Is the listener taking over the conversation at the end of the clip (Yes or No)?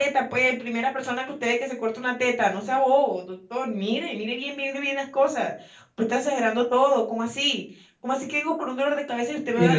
Yes